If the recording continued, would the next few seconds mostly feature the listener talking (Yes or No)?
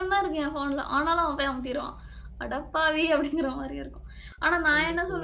No